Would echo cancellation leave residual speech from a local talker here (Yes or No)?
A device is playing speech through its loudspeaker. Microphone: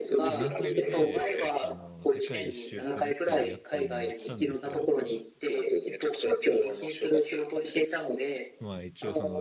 Yes